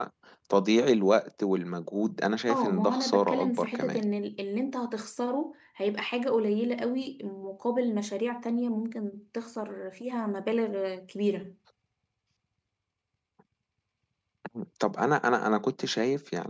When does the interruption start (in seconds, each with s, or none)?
2.5 s